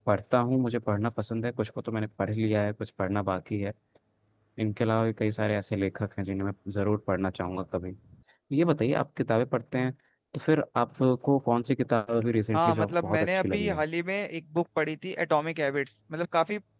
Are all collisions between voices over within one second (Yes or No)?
No